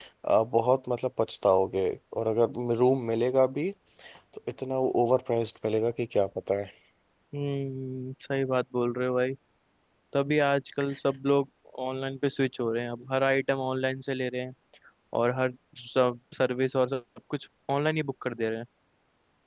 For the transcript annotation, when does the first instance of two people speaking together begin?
none

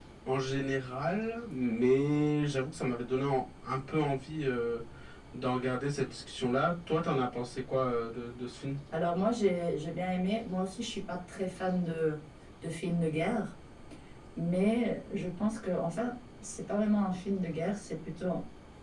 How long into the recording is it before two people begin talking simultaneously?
none

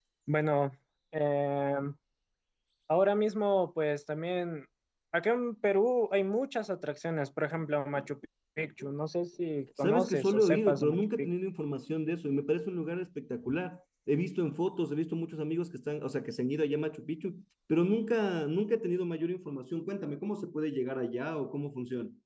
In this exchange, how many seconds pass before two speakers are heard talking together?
9.8 s

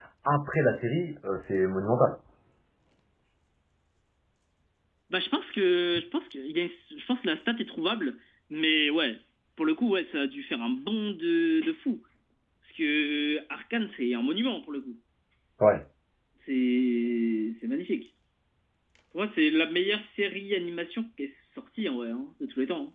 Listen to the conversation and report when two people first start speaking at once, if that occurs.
none

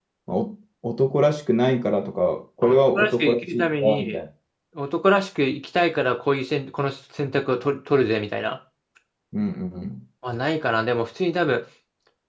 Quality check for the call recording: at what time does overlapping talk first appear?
2.6 s

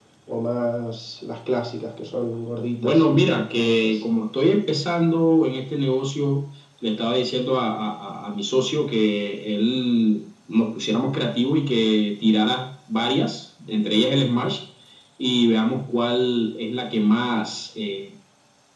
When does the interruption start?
2.8 s

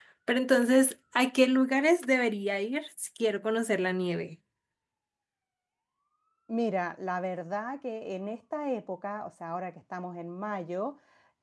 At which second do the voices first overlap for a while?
none

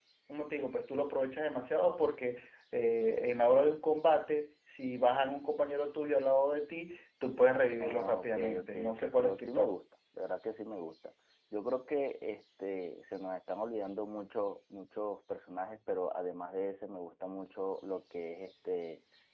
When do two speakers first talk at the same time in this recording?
7.8 s

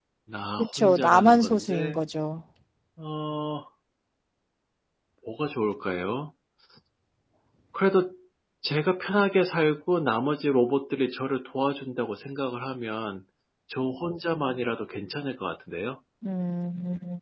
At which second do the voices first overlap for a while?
0.6 s

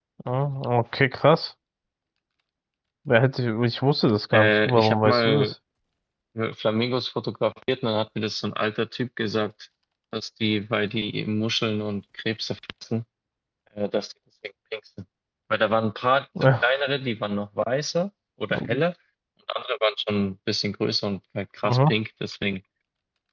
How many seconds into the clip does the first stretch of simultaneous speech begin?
4.3 s

